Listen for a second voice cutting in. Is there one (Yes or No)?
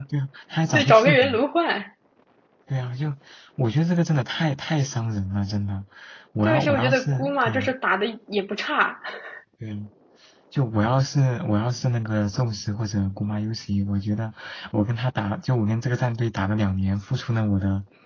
Yes